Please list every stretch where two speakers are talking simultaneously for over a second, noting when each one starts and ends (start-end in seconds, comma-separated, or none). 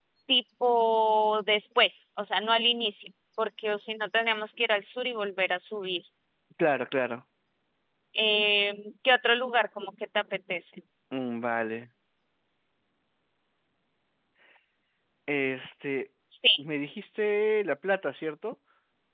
none